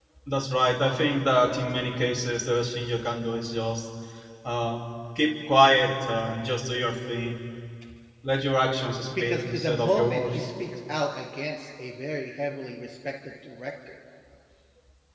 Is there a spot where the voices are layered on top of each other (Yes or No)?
Yes